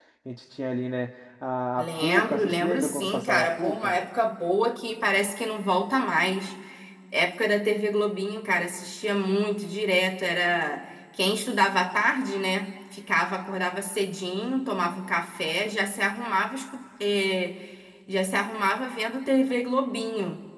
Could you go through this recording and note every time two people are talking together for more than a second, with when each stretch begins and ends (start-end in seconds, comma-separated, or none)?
1.8-3.9